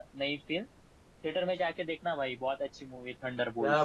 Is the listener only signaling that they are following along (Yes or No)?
No